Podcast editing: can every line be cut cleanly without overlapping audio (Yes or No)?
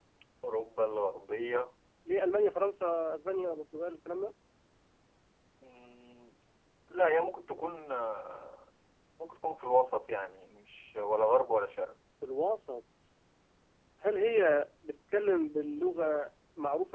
Yes